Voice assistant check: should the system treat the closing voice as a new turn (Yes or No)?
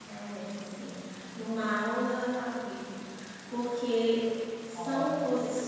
No